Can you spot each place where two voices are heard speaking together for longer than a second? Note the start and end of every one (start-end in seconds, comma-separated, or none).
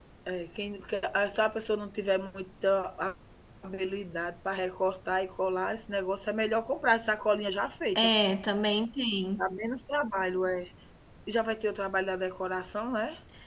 none